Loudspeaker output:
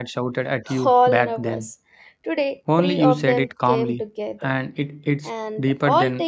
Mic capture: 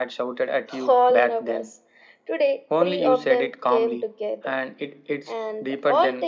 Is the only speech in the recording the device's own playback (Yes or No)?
Yes